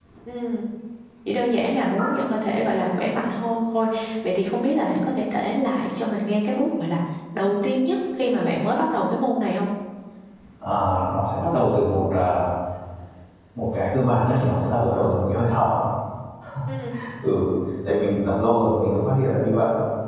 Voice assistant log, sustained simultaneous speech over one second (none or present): none